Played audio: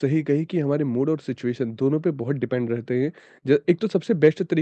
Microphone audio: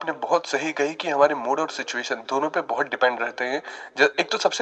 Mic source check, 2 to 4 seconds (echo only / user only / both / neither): echo only